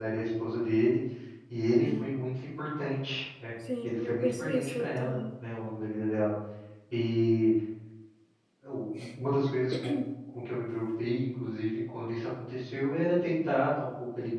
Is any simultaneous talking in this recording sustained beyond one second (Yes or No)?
Yes